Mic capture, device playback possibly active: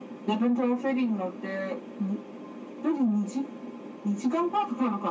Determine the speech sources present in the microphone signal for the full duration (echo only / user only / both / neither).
echo only